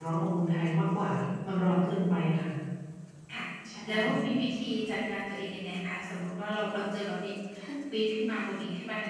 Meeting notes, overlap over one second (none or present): none